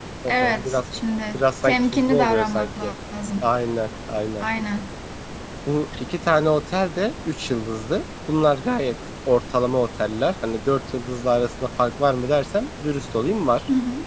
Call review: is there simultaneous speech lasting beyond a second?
Yes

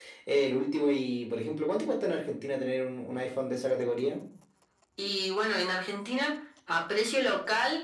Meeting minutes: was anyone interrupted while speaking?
No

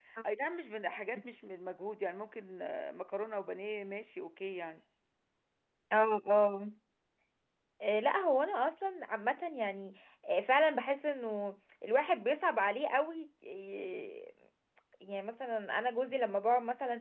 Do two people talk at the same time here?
No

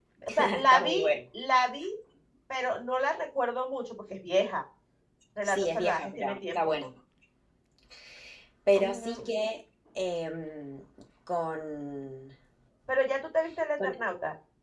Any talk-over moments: Yes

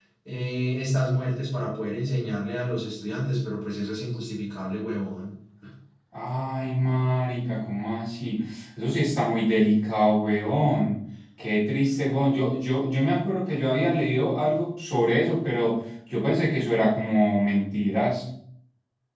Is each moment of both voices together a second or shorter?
Yes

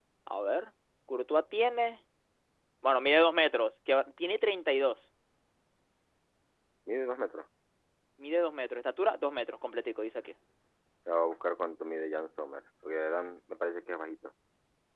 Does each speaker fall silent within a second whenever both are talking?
Yes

